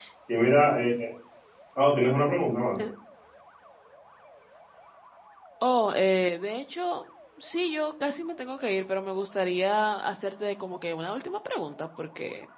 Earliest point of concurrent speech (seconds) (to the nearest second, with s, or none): none